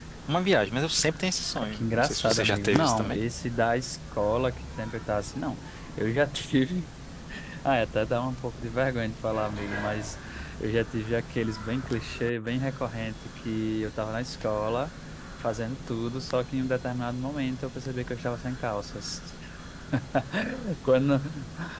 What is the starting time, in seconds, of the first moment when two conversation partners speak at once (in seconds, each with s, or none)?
1.6 s